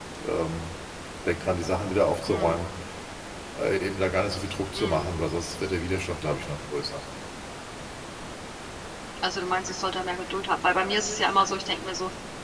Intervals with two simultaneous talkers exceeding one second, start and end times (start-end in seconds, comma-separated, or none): none